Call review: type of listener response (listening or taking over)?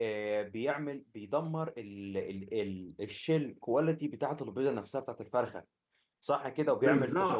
listening